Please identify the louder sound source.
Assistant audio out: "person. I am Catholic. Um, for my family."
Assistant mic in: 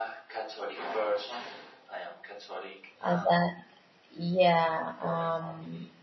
user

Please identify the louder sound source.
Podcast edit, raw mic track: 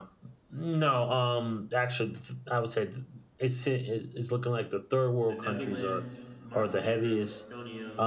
echo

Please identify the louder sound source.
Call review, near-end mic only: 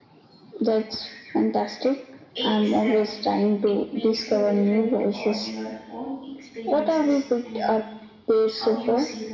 echo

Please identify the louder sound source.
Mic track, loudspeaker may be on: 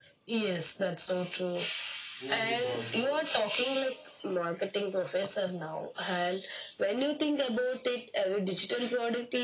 echo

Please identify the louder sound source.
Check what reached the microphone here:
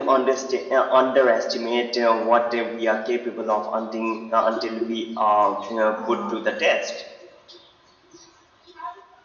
echo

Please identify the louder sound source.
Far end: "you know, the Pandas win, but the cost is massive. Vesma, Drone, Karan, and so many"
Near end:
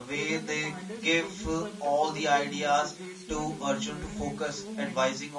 user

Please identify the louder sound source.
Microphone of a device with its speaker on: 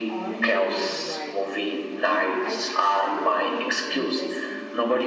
echo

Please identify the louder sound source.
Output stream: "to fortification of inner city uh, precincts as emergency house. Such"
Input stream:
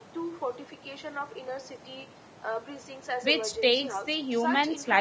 user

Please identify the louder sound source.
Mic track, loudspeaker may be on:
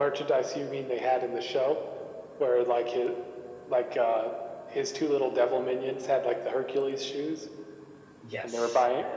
echo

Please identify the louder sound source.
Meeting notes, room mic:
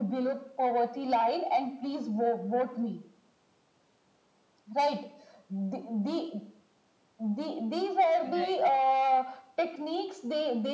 echo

